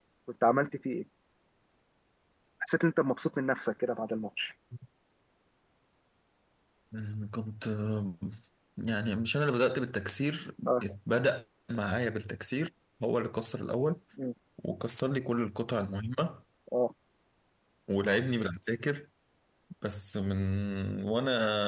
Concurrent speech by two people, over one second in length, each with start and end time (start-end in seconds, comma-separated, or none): none